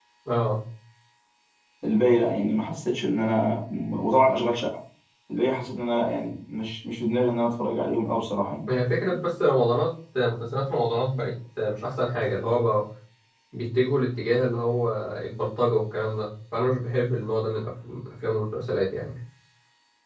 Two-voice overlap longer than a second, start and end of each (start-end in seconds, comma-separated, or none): none